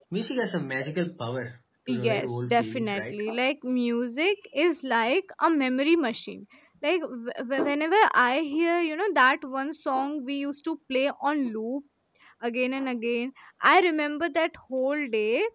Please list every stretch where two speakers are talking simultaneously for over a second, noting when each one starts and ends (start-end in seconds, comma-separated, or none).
1.9-3.2